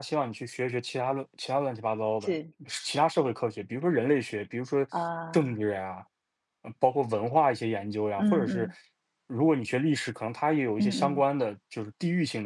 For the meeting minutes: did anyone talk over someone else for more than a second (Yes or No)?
No